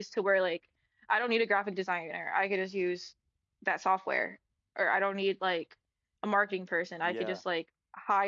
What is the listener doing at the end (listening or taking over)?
listening